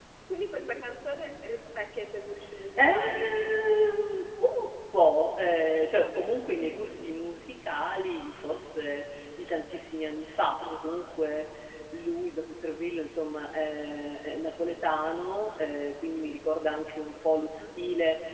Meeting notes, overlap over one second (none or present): none